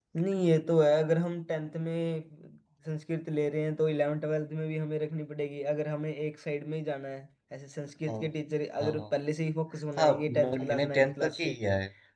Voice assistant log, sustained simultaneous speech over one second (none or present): present